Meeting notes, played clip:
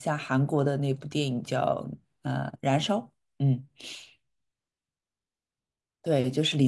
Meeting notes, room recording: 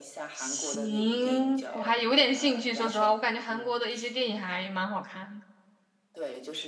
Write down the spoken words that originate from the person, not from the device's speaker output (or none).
行，我还有点兴趣，说实话，我感觉韩国的一些电影还蛮好看的。